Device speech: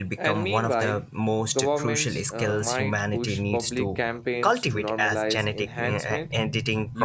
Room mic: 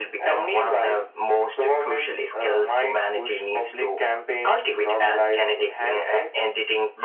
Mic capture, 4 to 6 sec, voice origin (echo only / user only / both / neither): echo only